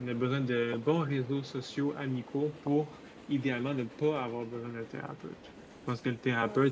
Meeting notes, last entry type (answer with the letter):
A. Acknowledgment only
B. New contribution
A